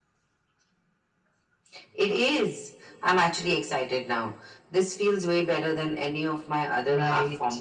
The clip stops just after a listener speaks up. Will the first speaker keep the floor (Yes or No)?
No